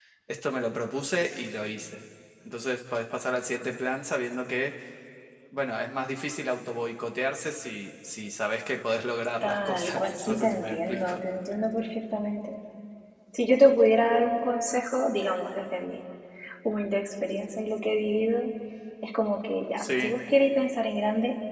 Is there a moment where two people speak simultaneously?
Yes, from 9.4 s

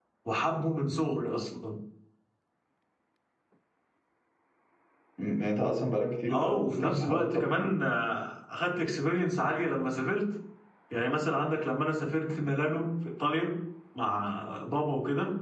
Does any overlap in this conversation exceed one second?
Yes, from 6.3 s

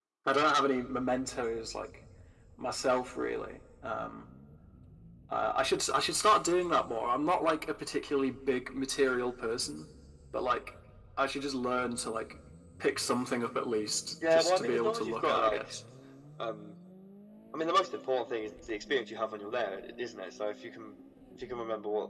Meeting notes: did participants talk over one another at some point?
Yes, from 14.2 s

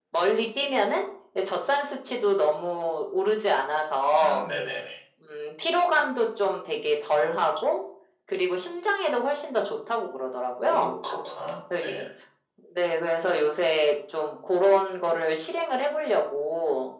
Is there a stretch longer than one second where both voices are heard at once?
No

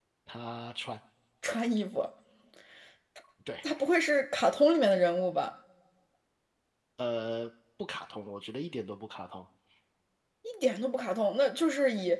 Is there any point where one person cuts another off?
No

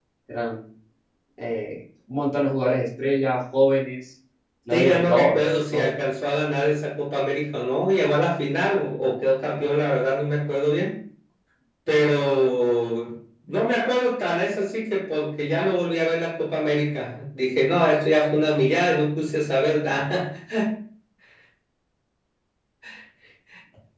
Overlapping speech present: Yes, from 4.7 s

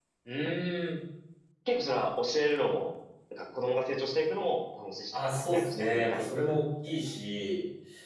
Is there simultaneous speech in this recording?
Yes, from 5.1 s

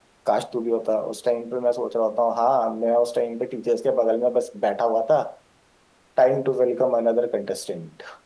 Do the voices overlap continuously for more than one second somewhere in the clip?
No

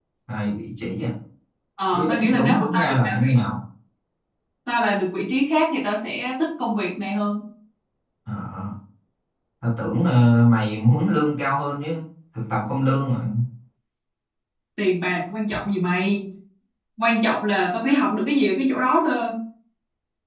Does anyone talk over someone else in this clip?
Yes, from 1.9 s

